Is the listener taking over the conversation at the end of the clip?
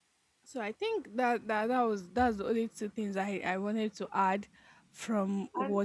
No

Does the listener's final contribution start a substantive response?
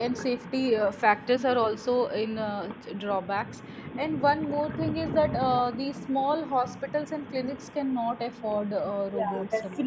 Yes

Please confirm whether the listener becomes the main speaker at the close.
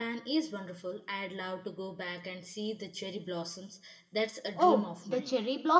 Yes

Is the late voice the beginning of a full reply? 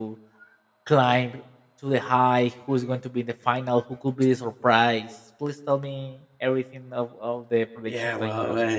Yes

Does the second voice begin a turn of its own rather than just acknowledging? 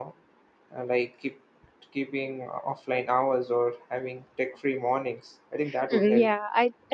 Yes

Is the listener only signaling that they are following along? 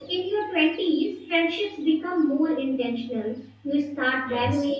Yes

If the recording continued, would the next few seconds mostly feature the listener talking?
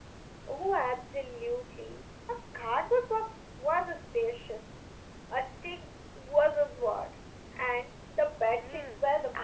Yes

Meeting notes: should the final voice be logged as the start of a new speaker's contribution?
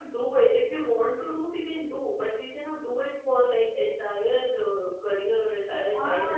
Yes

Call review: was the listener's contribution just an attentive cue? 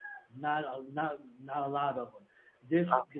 Yes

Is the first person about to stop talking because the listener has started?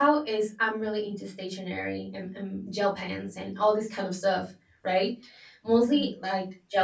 No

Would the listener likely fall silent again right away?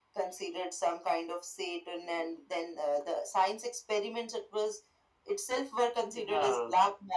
Yes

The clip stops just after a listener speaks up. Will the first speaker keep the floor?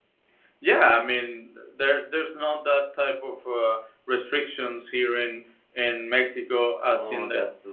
No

